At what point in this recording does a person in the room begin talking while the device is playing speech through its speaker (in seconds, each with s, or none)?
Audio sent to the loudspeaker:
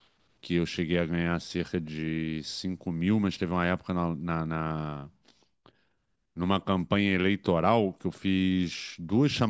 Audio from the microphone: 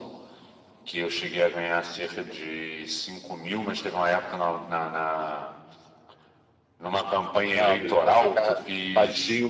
7.5 s